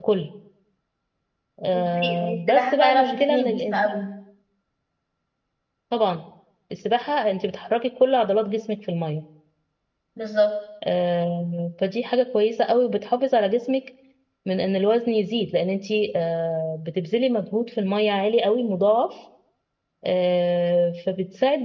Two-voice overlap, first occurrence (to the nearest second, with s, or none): 2 s